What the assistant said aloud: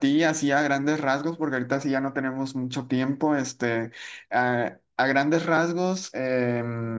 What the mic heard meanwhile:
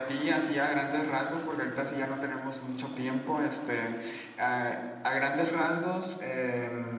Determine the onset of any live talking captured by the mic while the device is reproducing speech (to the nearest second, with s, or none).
none